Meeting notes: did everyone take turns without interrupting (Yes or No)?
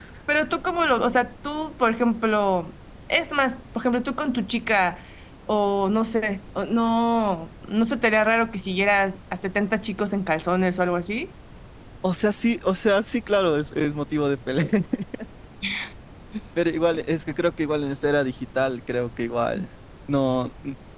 Yes